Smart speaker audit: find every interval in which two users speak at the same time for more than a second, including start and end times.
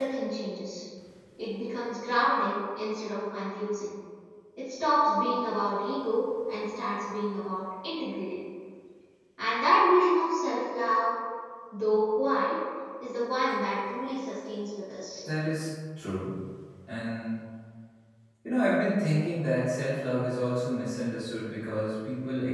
none

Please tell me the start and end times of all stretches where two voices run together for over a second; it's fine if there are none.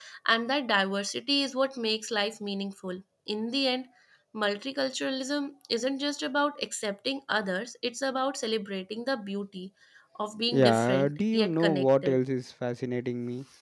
10.5-12.2

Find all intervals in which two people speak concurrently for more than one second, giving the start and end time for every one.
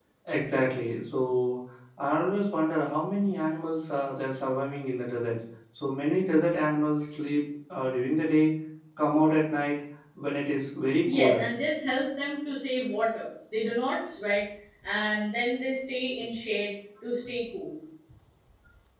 none

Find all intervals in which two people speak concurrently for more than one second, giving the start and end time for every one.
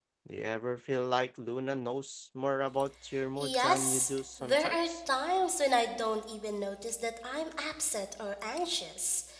3.4-4.9

